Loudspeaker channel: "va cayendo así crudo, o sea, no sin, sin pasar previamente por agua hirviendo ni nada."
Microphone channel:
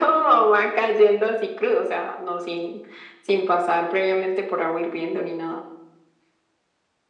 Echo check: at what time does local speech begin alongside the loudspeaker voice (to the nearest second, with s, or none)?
none